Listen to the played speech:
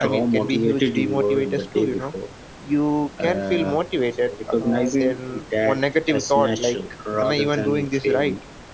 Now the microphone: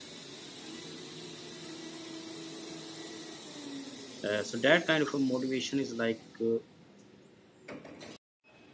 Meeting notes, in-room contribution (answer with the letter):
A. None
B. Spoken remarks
B